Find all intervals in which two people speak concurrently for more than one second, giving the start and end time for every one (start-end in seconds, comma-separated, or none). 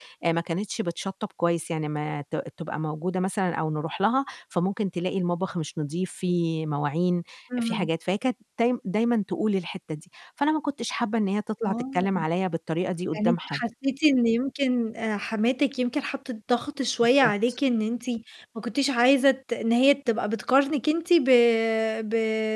none